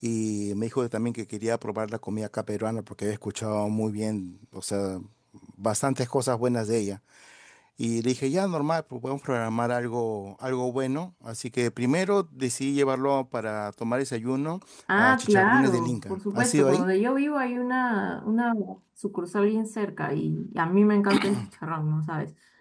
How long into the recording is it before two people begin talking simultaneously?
15.0 s

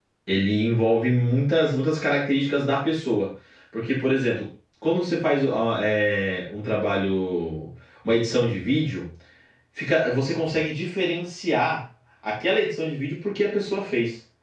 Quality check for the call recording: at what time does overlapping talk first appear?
none

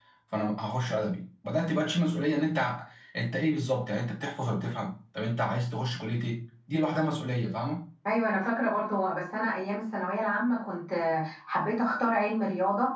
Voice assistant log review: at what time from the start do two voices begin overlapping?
none

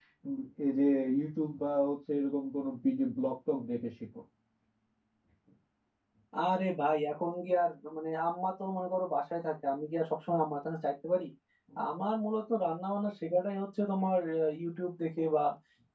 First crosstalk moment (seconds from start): none

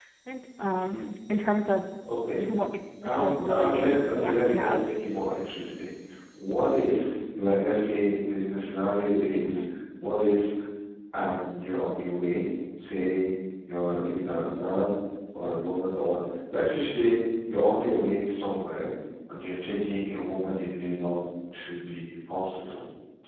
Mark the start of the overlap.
3.0 s

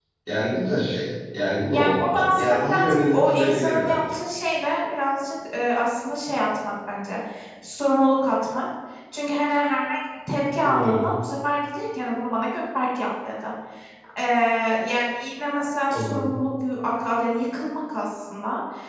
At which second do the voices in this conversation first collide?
1.7 s

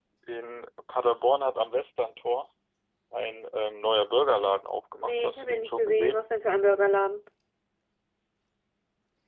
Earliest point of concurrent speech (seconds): 5.0 s

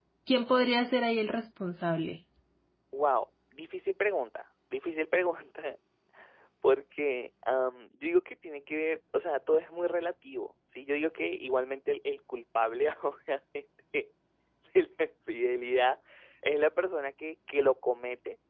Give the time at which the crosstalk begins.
none

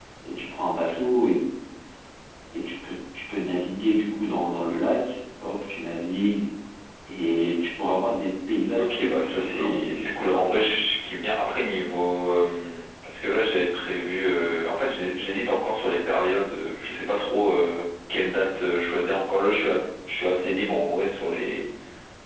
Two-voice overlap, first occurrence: 8.8 s

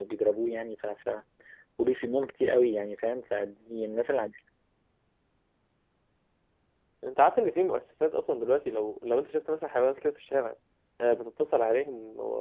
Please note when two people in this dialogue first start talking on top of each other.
none

